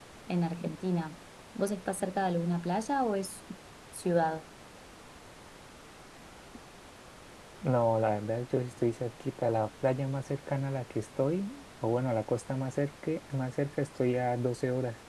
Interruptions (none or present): none